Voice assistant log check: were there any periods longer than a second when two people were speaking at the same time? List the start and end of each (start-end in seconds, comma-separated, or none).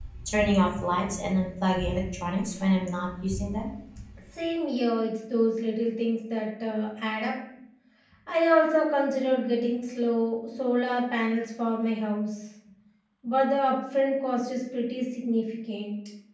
none